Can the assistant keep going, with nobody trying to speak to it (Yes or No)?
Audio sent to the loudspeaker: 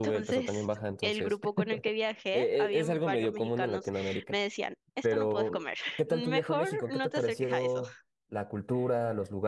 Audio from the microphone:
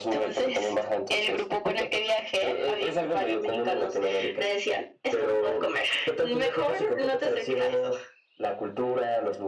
Yes